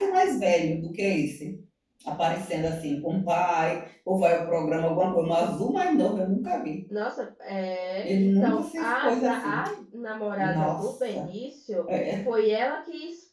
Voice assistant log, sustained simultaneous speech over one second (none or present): present